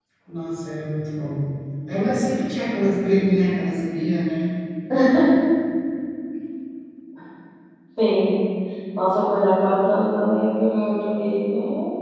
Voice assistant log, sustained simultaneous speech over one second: none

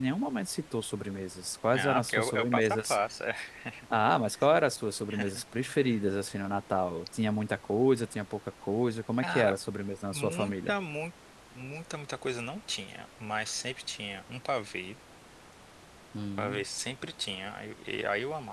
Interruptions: present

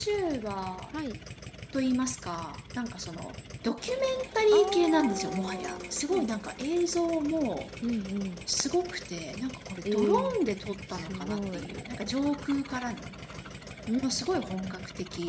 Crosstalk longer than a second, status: present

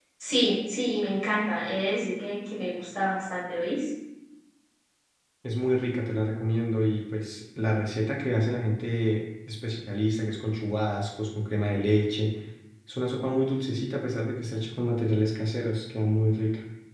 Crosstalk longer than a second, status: none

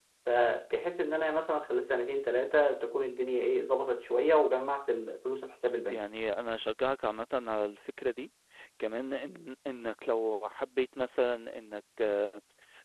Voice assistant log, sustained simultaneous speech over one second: none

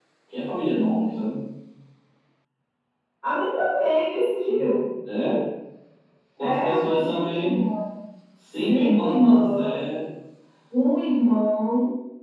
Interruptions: present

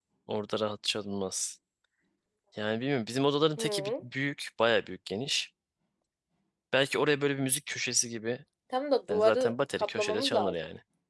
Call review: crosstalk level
present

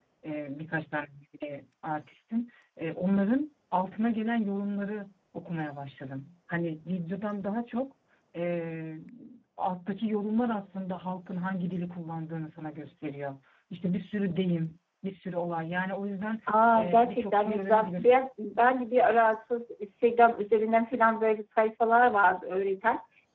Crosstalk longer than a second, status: present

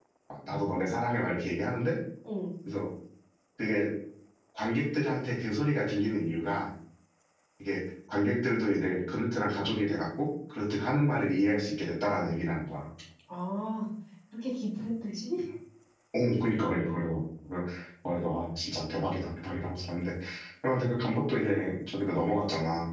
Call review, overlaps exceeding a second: none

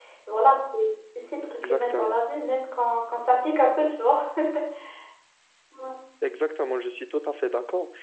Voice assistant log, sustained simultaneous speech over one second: none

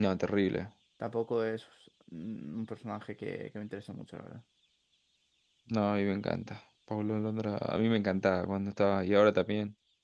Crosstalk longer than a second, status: none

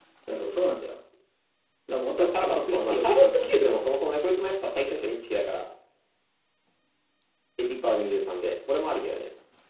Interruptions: present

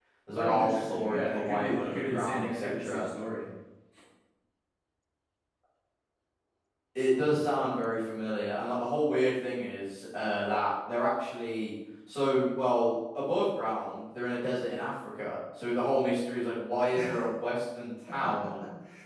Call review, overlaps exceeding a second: present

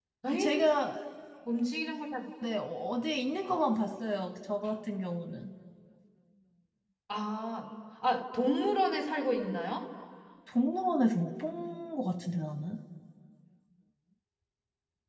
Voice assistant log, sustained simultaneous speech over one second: none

